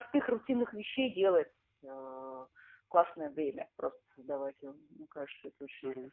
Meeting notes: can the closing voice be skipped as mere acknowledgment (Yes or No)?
No